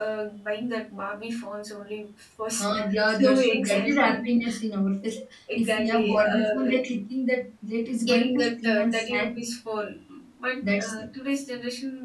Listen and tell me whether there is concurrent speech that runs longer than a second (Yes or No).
Yes